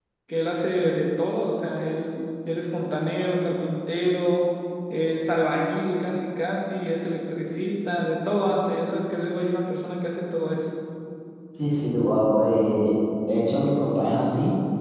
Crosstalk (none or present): none